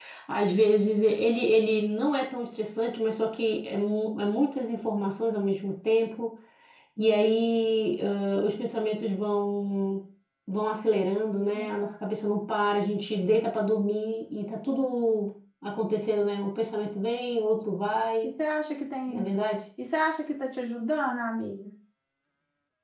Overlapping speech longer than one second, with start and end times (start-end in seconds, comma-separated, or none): none